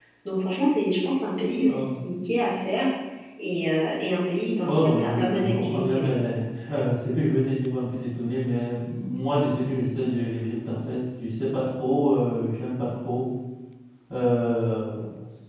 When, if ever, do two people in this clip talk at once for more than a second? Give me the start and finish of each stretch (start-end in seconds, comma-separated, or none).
4.6-6.2